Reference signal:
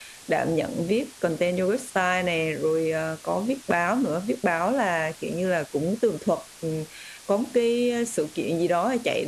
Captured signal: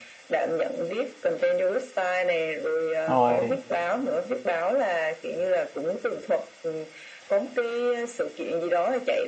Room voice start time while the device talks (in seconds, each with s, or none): 3.1 s